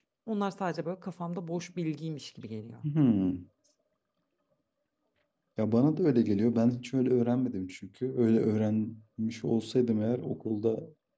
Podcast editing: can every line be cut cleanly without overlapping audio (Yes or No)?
Yes